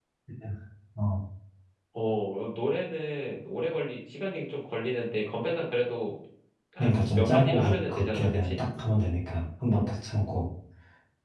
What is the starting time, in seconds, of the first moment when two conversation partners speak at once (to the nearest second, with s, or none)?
7 s